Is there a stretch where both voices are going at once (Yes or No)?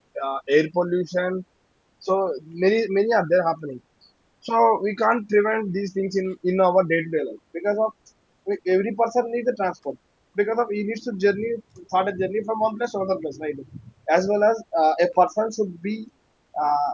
No